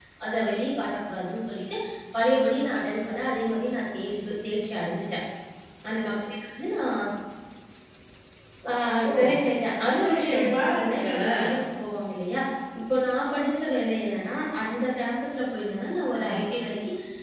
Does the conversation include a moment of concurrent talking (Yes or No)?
Yes